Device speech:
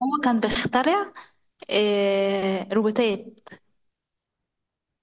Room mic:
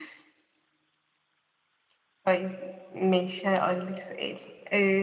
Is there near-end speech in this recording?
Yes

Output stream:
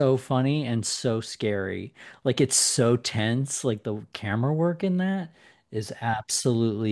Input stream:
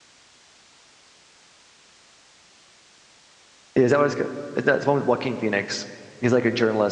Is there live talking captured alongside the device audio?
Yes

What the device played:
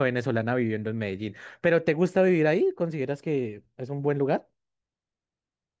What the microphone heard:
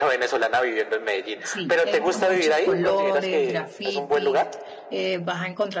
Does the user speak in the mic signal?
Yes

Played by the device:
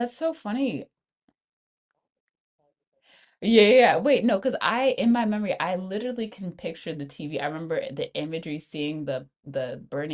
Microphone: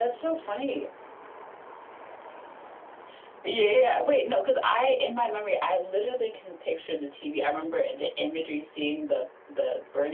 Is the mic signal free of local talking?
Yes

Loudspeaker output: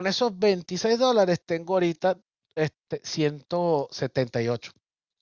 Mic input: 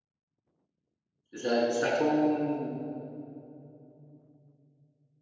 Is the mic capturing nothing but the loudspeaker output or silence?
No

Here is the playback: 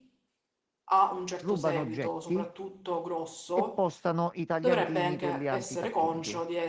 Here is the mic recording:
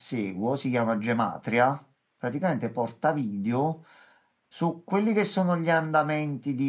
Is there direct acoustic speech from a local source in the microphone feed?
Yes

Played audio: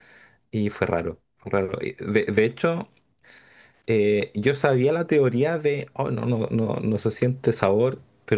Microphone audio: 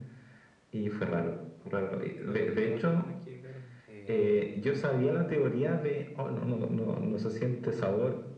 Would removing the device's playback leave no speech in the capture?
No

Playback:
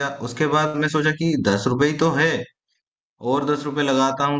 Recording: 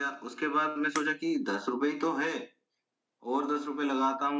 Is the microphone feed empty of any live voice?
Yes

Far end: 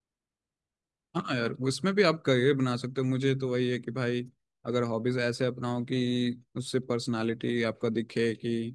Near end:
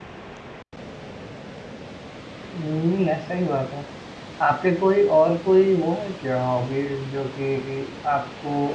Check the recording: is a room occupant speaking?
Yes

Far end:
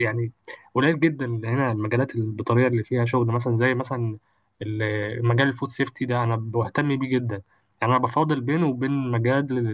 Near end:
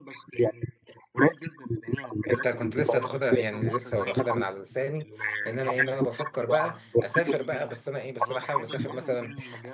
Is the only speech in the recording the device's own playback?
No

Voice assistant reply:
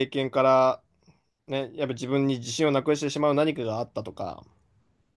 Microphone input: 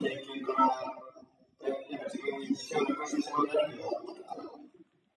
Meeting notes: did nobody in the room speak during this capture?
Yes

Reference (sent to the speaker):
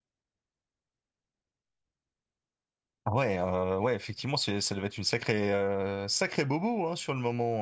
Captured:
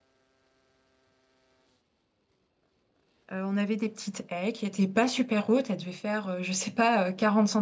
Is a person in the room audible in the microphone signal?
Yes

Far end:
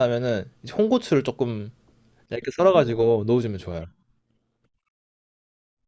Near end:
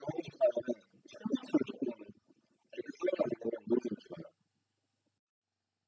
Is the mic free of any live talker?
Yes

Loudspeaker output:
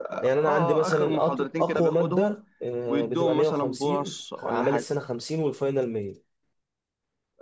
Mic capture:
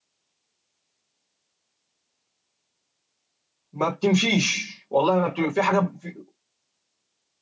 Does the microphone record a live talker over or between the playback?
Yes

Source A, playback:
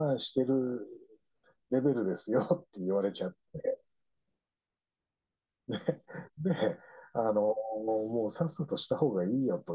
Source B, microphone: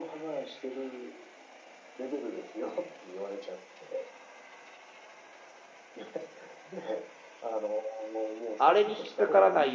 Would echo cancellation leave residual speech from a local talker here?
Yes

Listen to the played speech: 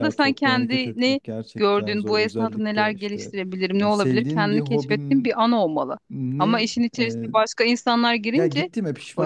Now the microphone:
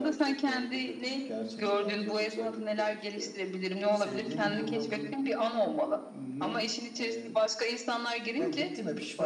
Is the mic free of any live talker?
Yes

